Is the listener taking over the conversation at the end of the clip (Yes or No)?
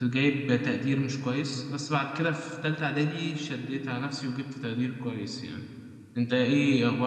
No